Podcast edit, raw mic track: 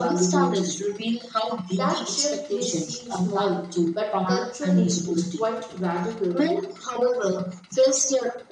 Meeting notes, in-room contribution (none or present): present